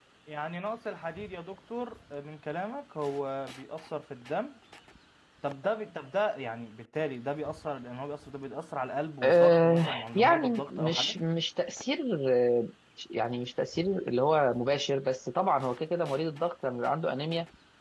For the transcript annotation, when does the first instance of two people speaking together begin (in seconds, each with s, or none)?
9.2 s